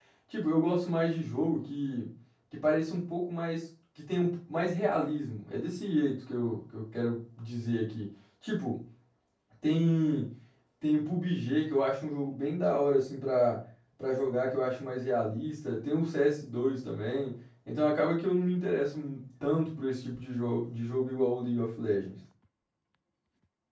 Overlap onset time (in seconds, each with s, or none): none